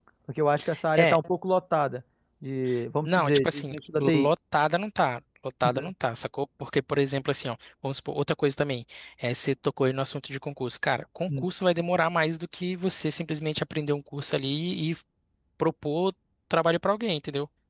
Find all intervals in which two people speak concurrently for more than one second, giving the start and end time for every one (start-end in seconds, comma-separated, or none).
3.0-4.3